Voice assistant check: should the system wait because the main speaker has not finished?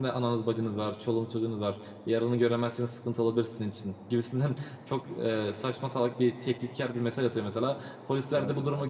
Yes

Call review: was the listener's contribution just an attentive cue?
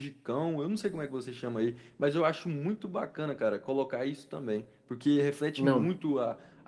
Yes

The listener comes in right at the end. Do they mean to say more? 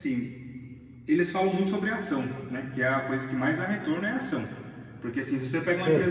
No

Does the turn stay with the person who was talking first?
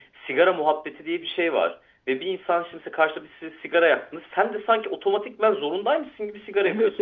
No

